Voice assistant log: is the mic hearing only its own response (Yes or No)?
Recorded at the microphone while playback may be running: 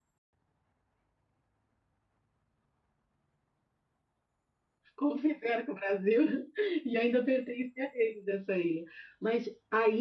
No